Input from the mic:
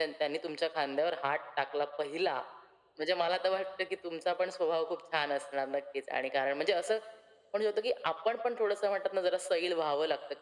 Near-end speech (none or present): none